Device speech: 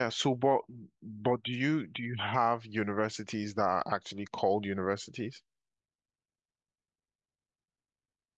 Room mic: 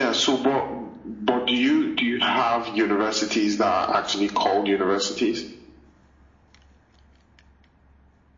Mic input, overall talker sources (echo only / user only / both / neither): echo only